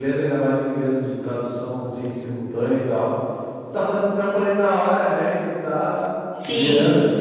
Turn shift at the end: No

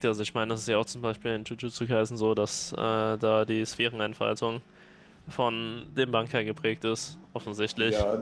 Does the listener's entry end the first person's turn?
Yes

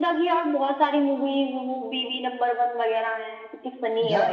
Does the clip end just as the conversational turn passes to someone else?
Yes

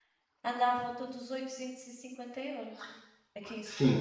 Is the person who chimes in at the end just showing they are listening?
No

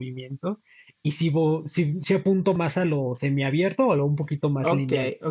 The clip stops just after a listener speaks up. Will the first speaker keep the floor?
No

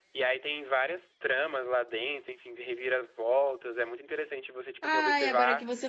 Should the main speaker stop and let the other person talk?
Yes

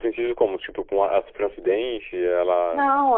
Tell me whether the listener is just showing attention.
No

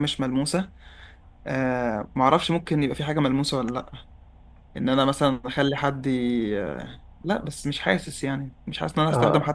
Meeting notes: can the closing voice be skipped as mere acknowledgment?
Yes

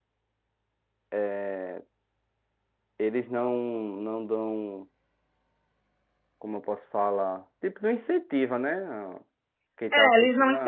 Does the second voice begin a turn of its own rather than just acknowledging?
Yes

